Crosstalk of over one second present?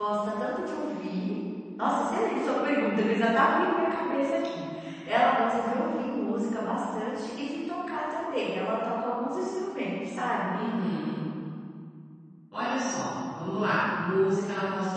No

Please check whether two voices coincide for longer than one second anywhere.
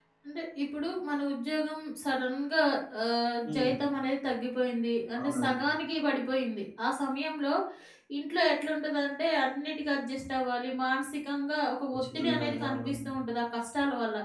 Yes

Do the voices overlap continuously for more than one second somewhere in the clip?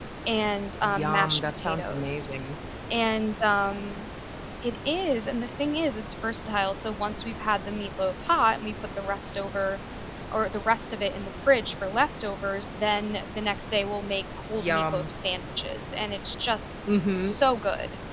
Yes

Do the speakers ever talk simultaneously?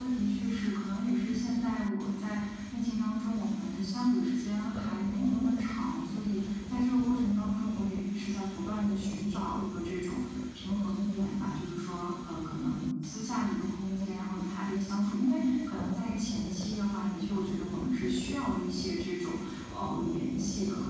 No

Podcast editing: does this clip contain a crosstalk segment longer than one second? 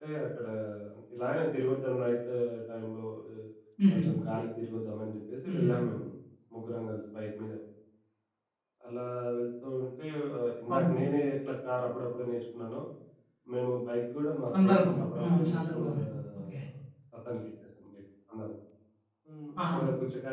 Yes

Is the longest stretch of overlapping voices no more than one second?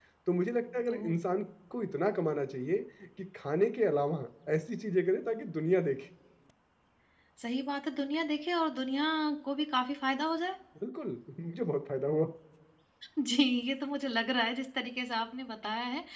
Yes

